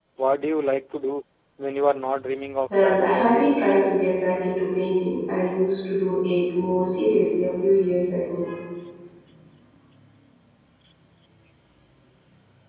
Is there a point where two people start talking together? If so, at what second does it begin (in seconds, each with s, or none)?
2.7 s